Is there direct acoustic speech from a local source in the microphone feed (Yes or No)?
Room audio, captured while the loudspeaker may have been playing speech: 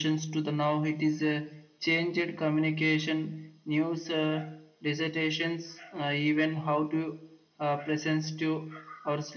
No